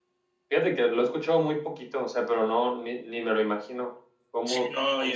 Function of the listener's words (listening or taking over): taking over